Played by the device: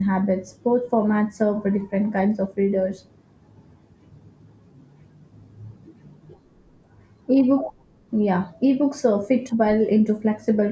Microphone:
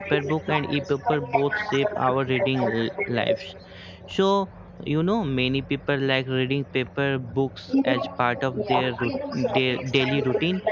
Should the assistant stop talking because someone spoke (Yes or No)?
Yes